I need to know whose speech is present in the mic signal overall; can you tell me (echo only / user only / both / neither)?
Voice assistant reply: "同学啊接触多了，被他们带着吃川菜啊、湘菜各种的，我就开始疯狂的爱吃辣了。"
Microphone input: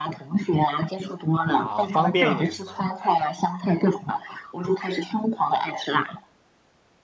both